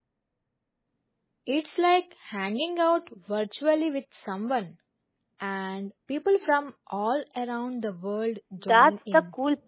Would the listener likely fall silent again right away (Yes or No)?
No